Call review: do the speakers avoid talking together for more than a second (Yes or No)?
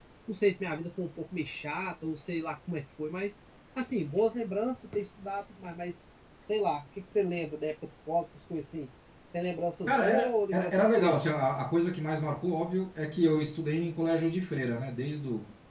No